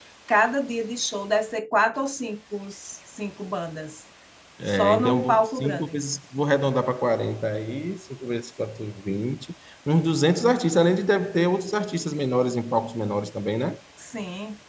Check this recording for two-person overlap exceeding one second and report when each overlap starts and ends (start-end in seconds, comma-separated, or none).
4.7-6.0